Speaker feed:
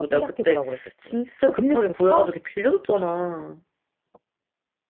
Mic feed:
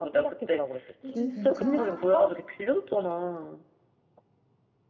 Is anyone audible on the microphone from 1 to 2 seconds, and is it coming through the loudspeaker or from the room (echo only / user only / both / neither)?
both